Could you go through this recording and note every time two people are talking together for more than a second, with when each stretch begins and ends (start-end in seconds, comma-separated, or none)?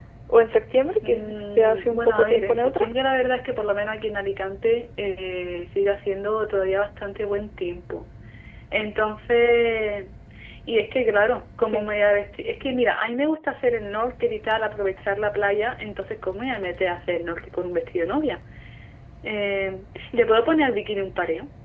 1.0-2.9